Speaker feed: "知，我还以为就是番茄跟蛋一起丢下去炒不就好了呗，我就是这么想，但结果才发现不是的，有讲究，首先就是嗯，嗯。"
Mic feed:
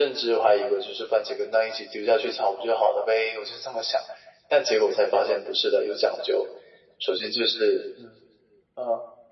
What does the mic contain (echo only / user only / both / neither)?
echo only